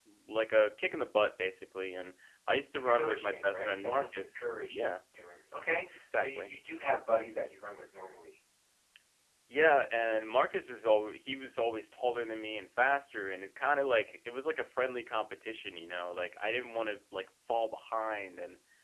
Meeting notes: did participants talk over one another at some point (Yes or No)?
Yes